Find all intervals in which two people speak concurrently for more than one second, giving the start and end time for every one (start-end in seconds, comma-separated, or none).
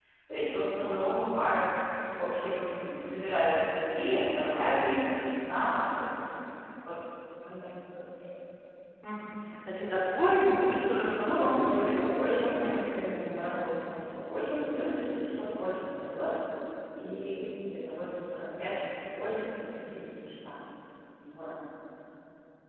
11.2-12.8